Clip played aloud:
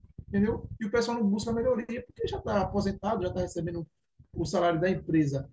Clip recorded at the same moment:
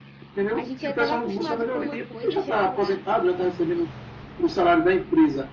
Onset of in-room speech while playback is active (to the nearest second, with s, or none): 1 s